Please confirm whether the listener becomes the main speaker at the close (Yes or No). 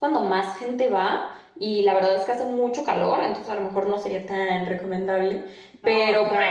No